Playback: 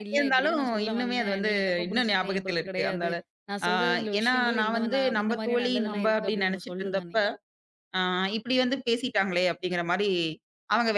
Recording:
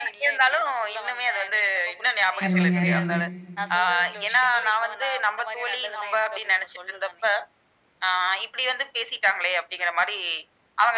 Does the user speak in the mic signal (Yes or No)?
Yes